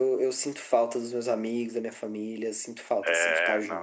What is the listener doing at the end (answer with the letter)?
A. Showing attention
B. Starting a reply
B